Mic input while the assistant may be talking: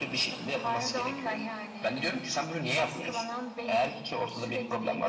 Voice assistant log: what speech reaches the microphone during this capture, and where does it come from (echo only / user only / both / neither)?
echo only